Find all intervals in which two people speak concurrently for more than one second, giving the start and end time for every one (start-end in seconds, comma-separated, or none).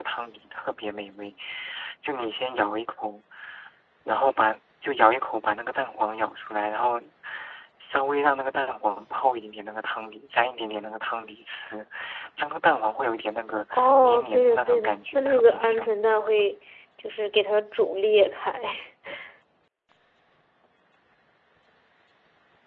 13.7-15.9